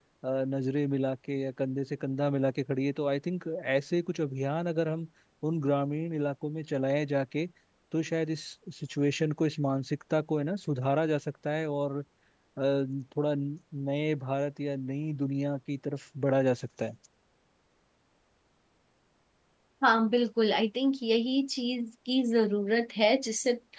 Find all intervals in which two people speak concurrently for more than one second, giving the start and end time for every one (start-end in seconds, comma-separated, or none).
none